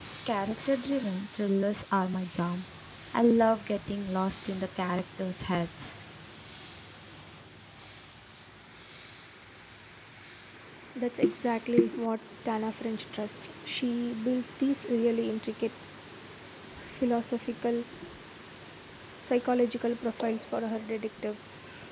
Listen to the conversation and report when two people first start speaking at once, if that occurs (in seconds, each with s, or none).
none